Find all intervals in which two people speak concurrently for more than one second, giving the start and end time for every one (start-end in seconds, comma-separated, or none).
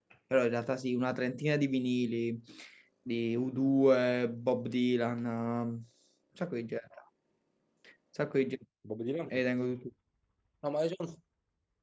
none